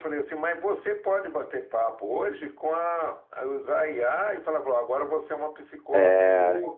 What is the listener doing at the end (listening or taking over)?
listening